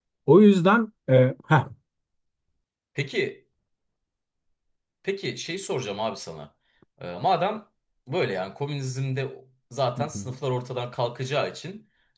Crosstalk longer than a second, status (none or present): none